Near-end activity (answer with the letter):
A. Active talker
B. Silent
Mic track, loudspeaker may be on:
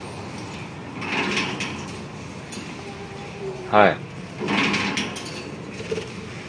A